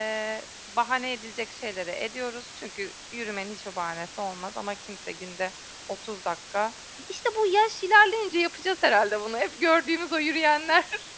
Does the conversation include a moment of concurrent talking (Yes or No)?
No